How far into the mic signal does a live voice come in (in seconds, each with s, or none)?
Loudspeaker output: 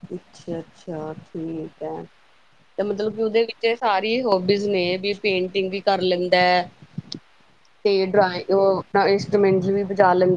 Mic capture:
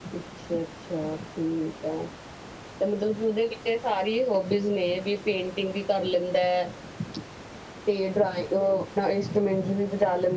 none